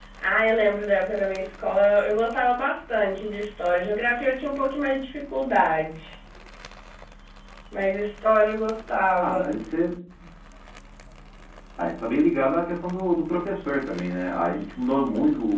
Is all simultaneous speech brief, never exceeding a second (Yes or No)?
Yes